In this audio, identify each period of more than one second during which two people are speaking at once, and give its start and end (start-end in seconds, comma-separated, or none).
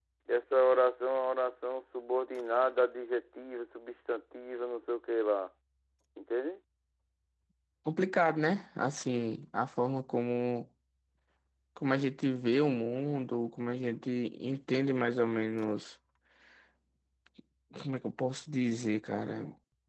none